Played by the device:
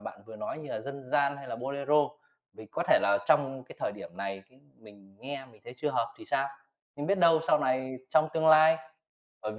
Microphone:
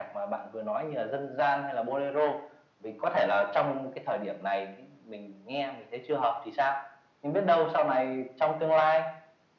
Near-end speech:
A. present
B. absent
B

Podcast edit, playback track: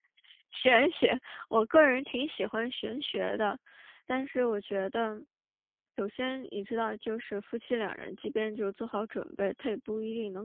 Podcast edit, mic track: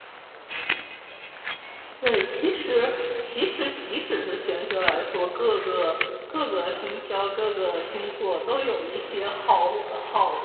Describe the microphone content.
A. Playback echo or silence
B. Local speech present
B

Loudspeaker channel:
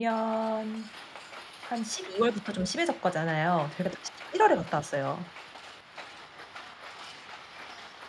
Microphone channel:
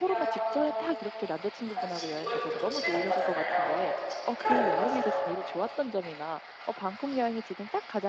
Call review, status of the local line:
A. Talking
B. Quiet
A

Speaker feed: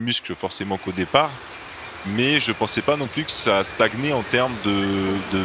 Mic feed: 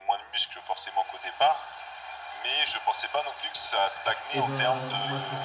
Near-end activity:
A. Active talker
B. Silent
A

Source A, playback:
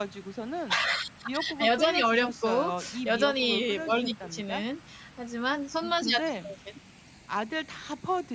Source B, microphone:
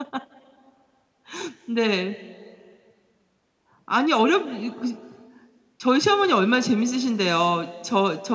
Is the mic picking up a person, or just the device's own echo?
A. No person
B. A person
B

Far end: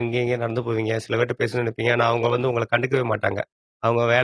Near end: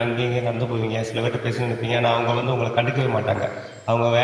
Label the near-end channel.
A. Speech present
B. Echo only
B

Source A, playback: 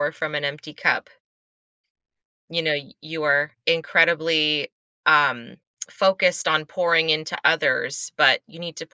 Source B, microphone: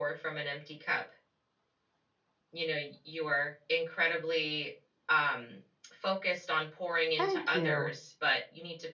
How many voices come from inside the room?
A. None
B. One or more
B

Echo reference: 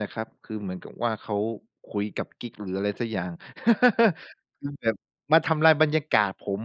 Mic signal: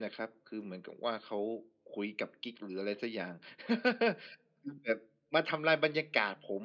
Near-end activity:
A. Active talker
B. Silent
B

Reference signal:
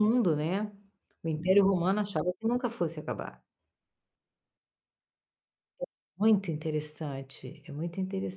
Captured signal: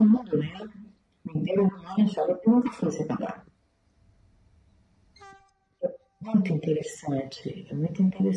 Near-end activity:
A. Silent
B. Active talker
A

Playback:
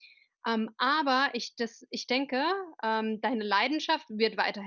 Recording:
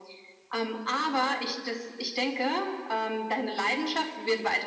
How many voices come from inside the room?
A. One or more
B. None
B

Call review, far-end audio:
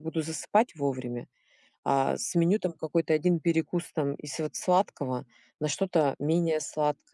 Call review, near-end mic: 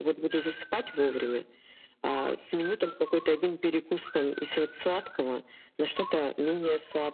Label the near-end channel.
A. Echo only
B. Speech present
A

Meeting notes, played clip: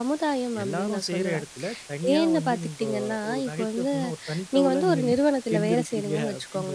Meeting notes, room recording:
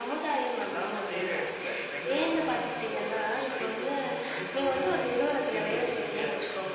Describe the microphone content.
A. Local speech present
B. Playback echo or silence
B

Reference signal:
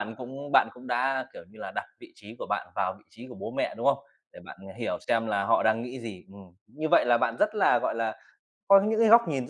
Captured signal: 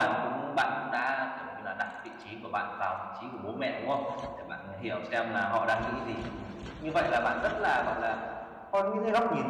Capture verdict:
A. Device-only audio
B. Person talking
A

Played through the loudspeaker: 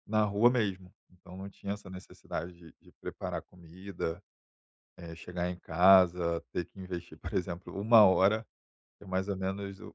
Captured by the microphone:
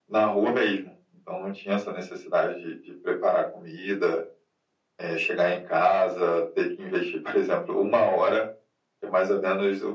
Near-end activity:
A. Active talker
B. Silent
B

